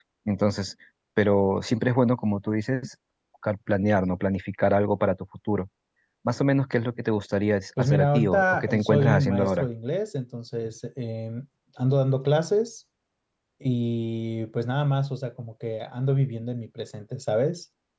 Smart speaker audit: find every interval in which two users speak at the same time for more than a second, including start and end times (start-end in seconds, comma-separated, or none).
7.8-9.7